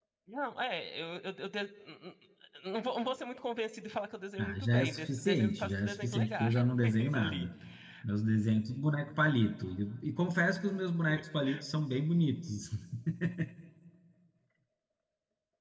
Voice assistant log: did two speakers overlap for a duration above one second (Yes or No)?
Yes